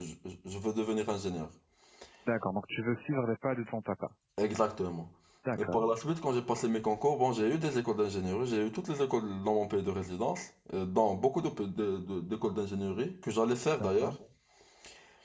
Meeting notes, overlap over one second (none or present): none